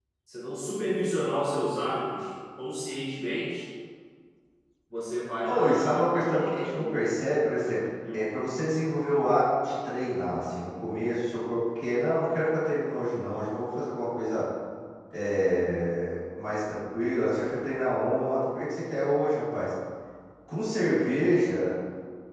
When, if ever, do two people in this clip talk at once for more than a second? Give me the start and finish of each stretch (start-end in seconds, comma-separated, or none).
5.5-7.2